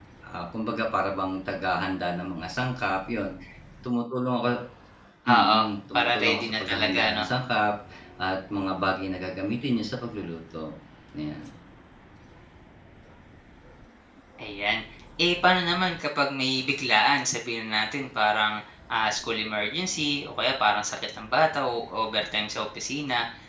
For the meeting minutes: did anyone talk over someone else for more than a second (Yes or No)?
Yes